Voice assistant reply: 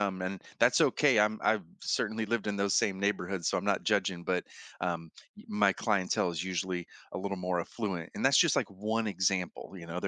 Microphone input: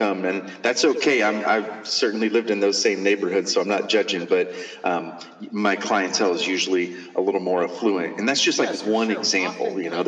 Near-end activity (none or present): present